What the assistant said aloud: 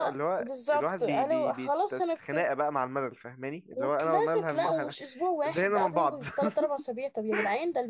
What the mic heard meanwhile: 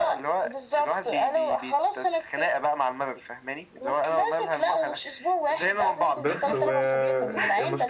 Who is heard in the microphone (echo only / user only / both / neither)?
both